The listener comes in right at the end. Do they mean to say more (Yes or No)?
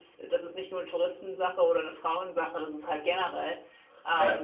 No